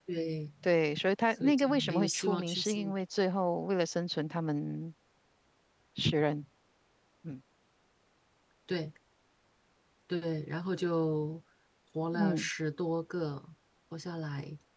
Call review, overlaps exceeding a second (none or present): present